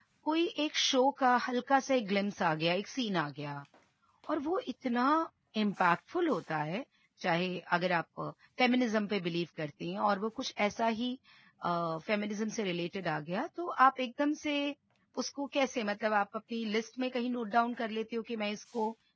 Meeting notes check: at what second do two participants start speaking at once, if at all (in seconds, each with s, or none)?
none